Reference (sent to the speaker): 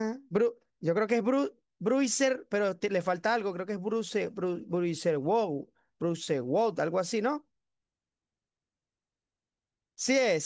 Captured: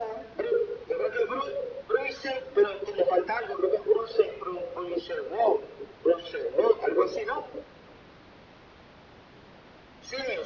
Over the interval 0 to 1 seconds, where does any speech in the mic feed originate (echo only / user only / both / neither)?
echo only